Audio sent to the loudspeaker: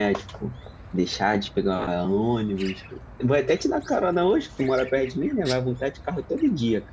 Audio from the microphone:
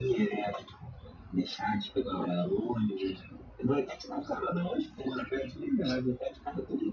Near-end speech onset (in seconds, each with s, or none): none